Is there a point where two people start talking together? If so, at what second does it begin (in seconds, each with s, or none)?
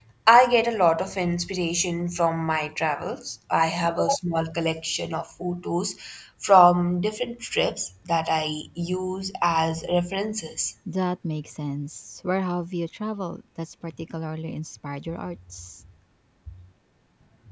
none